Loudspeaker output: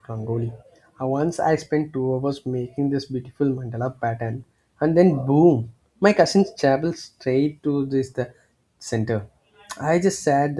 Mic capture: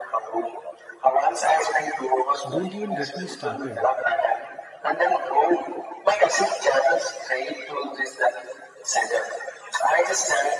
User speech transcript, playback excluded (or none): don't even get me started.